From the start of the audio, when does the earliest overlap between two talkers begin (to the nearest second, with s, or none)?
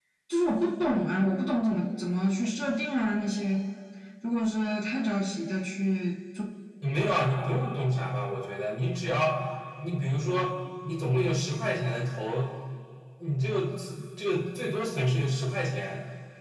none